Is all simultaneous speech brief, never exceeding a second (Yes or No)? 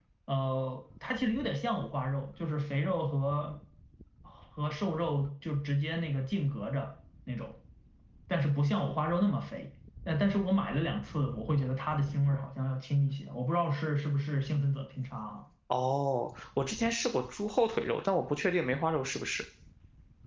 Yes